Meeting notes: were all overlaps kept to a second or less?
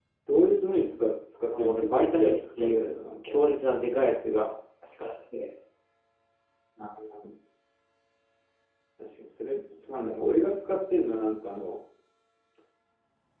No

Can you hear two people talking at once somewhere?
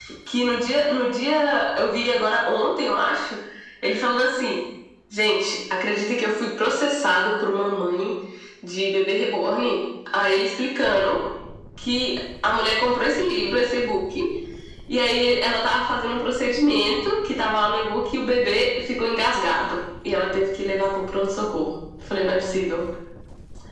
No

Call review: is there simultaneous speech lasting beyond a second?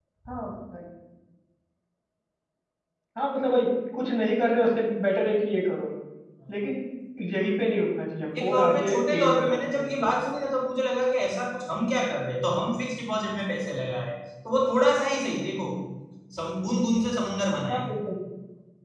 Yes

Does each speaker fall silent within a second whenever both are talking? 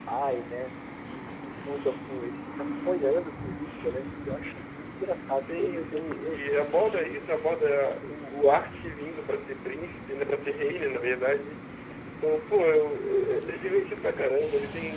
No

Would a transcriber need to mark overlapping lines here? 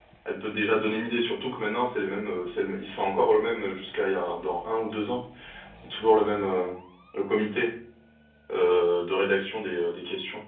No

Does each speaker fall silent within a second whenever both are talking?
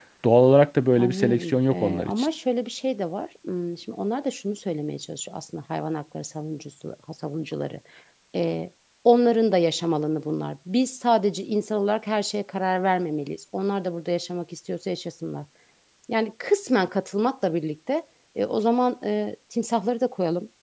No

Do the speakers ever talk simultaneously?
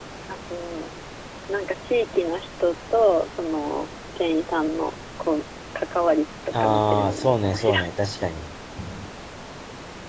Yes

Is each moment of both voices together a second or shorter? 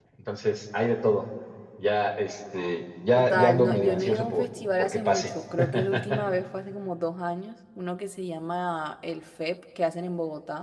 No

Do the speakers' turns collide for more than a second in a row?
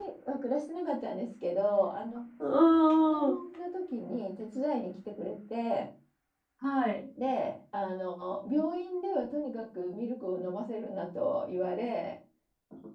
No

